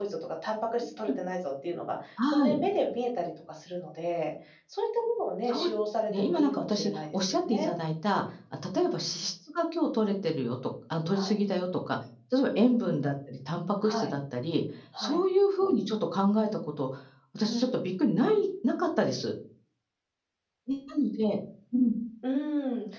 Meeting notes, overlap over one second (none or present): present